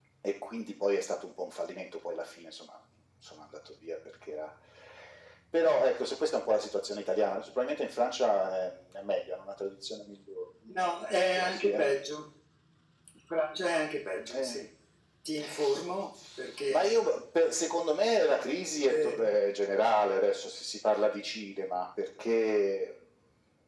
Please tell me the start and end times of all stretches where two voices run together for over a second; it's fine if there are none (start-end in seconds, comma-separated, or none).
none